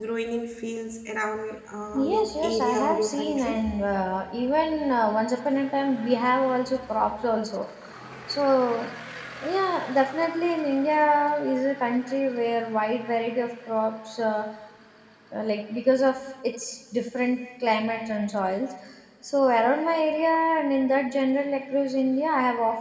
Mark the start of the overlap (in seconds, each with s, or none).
1.9 s